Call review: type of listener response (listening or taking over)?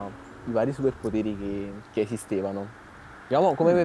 listening